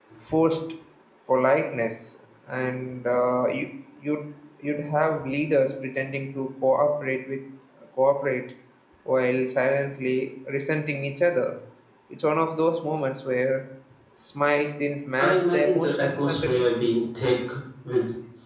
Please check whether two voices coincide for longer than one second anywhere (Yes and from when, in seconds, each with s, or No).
Yes, from 15.2 s